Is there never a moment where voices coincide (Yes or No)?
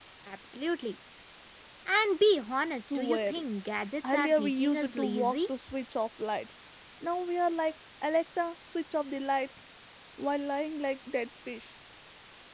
No